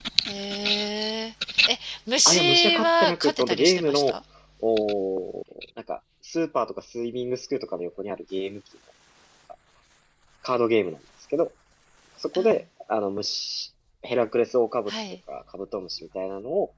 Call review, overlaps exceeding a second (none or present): present